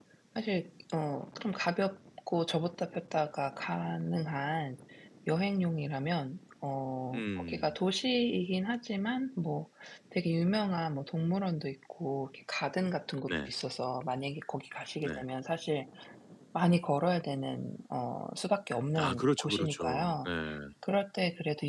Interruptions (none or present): present